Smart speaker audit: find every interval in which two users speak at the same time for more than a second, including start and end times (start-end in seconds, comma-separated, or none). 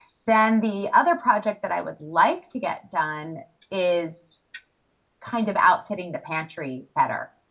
none